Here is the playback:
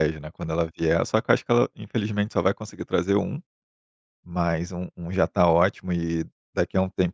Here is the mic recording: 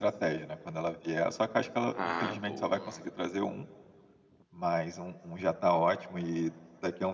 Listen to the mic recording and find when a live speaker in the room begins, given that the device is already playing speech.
1.9 s

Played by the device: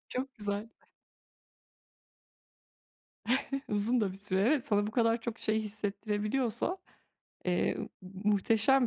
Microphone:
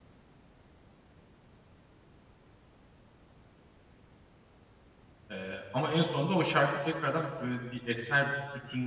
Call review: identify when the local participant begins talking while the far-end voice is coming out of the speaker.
5.3 s

